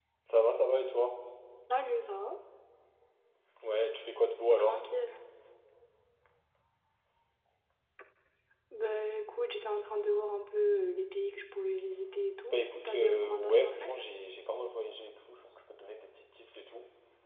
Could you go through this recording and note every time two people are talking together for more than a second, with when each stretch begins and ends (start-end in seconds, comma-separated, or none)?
12.5-13.9